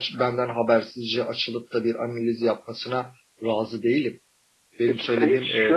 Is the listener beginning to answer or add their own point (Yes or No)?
Yes